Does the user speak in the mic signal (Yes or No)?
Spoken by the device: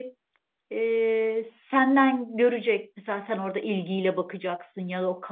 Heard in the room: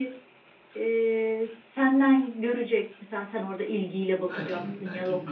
Yes